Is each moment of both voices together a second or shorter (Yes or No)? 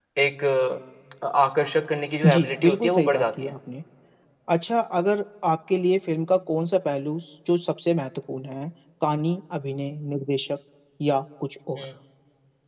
No